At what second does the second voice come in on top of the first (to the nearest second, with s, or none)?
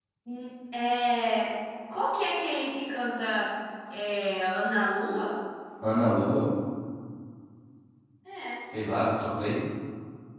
none